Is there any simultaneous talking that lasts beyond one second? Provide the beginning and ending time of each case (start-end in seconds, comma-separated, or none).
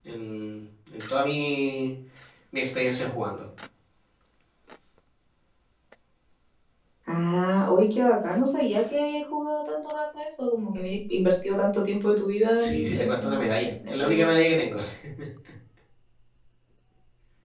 12.6-14.3